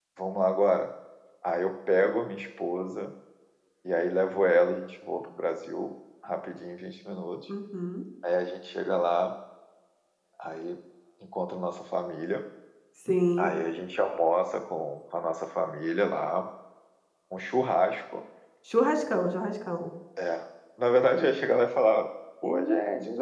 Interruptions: none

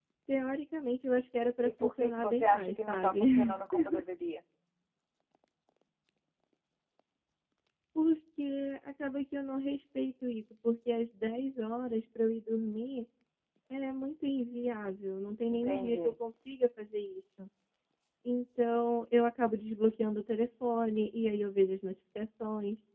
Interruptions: present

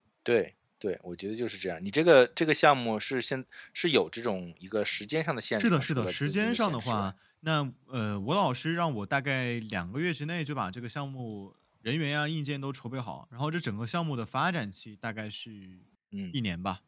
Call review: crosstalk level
present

